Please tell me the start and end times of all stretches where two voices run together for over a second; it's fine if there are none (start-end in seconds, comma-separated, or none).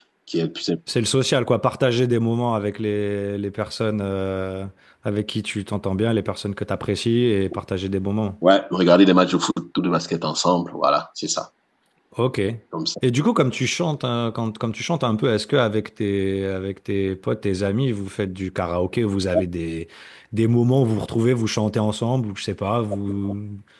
none